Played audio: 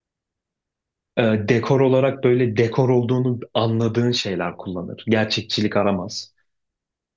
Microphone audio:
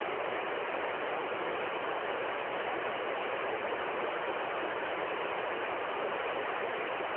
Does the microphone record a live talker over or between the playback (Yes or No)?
No